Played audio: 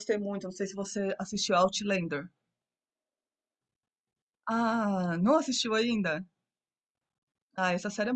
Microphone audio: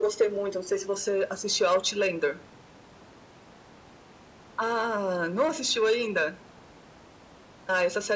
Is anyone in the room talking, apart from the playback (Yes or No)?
No